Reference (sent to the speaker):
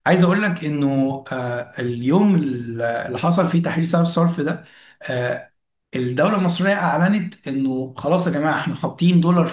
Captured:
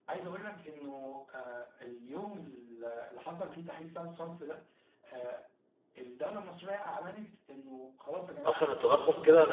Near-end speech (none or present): present